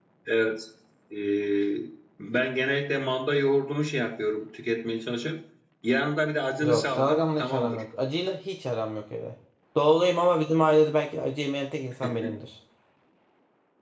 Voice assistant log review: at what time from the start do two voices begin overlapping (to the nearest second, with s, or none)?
7 s